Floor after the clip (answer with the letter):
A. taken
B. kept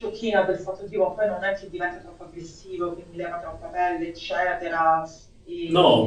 A